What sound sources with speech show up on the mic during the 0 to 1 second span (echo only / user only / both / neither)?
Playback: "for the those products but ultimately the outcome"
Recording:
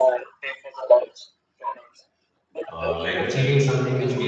echo only